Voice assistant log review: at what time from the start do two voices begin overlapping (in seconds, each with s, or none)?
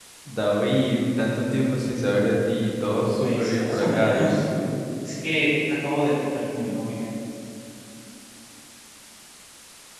3.2 s